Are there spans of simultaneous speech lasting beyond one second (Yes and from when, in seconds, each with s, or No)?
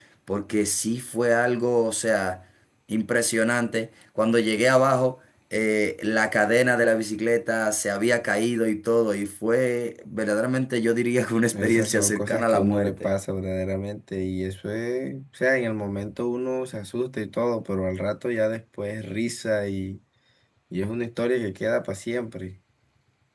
Yes, from 11.5 s